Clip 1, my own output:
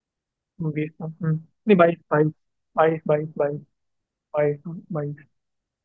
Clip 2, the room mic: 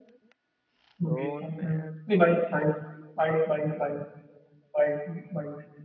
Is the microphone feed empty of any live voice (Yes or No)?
No